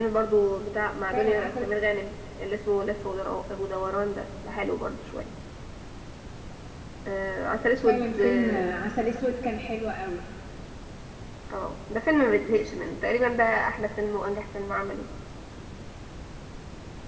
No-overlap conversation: No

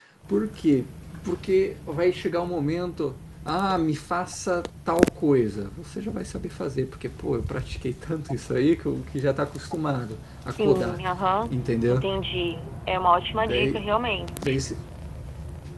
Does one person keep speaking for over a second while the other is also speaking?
No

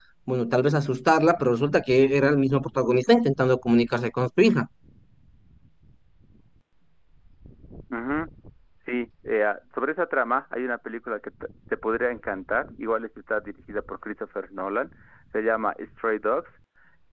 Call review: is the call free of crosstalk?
Yes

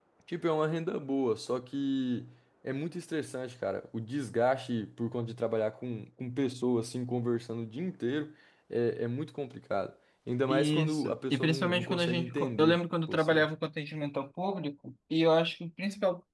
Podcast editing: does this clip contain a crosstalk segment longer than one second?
Yes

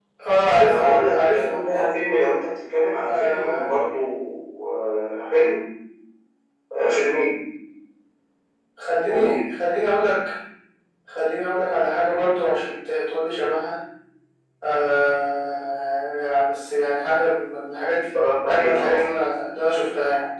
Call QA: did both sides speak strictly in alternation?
No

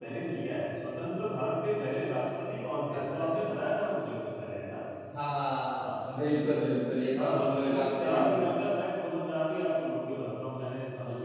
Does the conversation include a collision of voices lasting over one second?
Yes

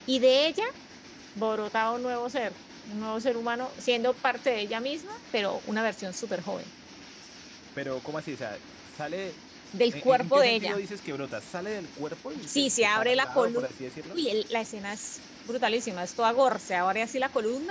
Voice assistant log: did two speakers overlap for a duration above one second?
Yes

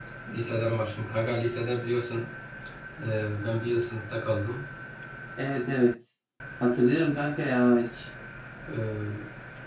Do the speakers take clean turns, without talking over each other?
Yes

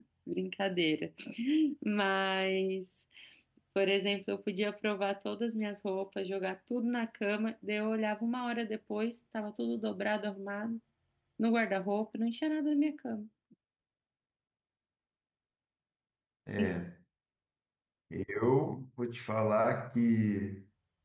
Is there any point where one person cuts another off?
No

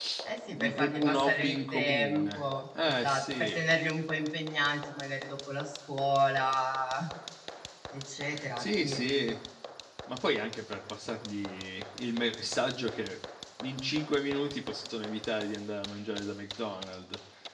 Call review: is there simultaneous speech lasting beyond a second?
Yes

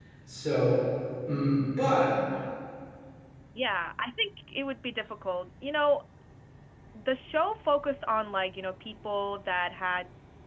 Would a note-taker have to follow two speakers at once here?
No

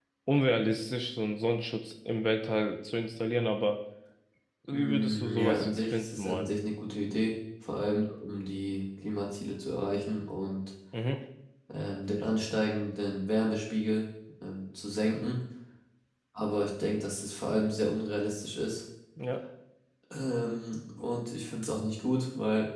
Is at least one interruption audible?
Yes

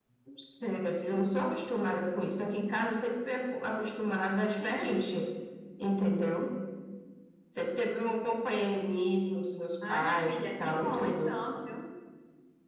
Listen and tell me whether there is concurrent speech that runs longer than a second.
Yes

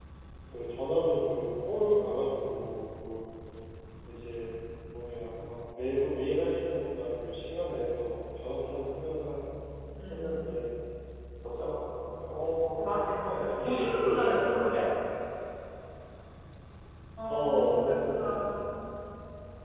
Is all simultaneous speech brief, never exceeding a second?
No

